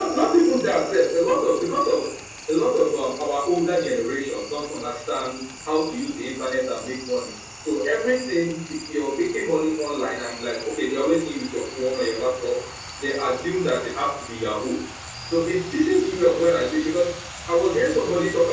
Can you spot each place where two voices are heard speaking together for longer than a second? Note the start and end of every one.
none

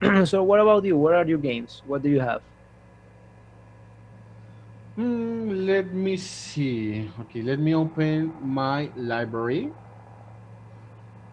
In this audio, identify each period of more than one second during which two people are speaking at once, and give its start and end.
none

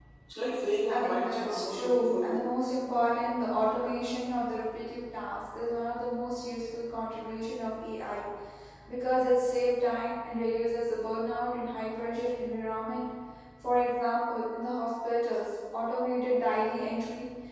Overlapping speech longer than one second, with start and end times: 0.9-2.4

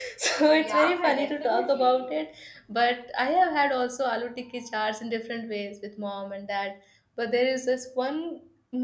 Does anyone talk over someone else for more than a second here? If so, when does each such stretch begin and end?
0.5-2.0

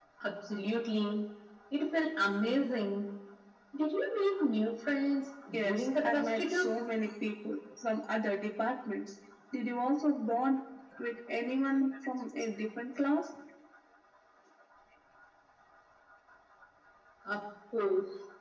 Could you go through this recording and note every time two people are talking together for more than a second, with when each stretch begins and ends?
5.5-6.7

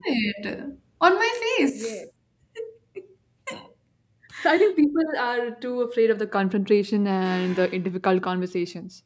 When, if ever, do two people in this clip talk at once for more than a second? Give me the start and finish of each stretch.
none

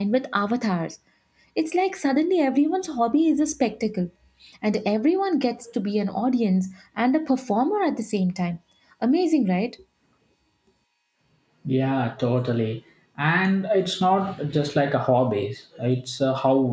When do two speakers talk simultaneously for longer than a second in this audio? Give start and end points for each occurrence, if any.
none

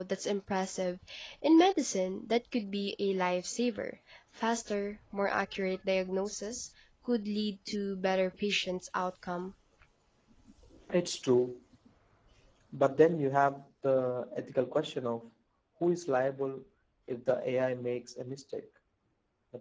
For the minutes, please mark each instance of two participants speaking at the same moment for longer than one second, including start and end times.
none

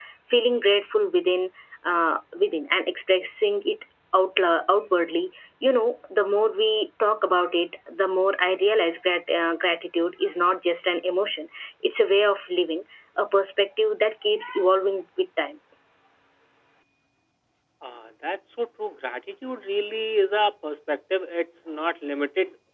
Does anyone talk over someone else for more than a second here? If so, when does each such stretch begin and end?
none

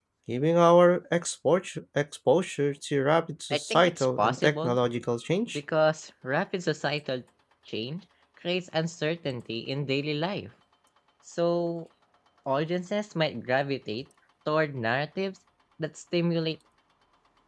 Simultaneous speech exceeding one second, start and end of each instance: 3.5-4.8

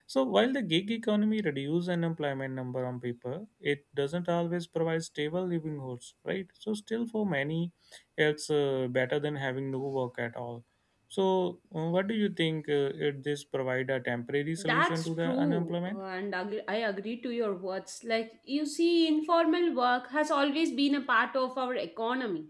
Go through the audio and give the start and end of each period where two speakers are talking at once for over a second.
14.6-16.0

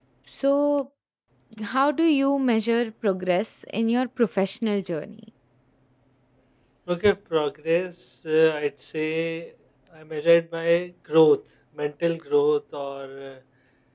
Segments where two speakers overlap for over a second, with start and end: none

